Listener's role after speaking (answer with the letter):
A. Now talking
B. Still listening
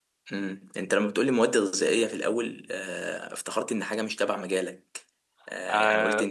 B